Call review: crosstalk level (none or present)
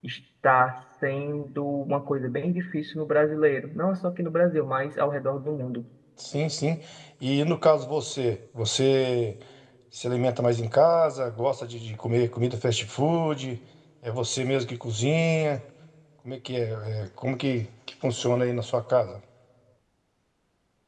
none